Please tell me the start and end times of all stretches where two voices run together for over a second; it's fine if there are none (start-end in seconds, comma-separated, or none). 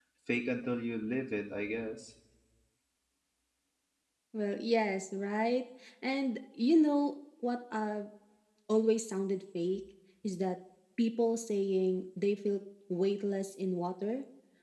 none